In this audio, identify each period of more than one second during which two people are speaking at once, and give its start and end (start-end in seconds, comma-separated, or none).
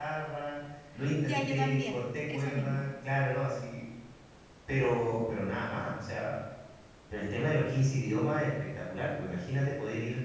1.2-2.9